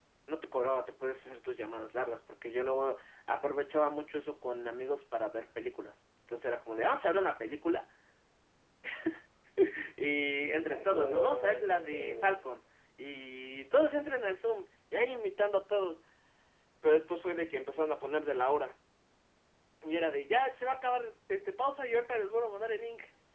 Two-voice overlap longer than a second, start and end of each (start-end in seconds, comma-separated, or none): 10.4-12.3